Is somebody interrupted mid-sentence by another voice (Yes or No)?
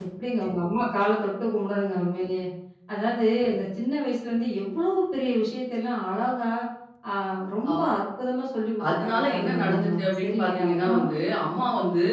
Yes